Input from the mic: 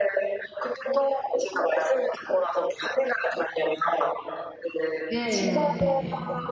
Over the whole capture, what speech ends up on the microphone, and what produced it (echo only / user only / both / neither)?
both